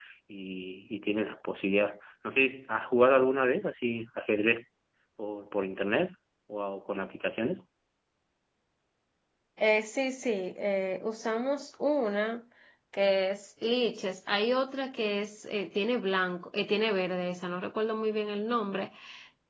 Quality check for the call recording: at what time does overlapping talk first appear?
none

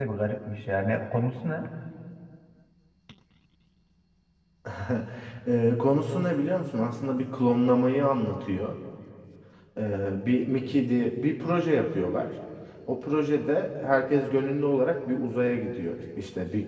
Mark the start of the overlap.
none

